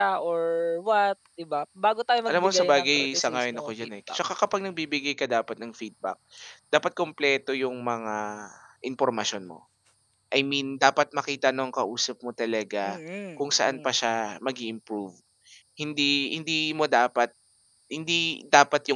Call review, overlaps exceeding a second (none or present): present